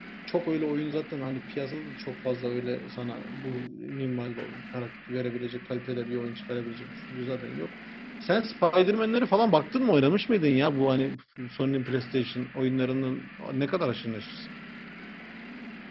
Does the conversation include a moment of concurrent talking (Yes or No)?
No